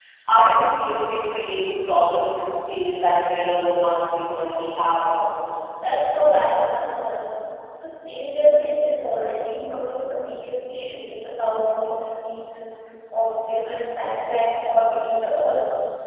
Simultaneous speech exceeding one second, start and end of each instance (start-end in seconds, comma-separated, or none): none